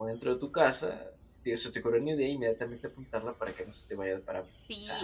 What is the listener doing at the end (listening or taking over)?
taking over